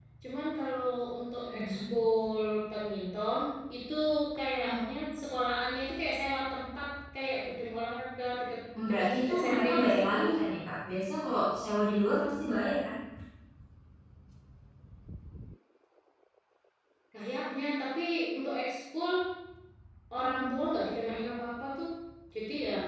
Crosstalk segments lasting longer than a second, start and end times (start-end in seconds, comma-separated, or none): 8.9-10.2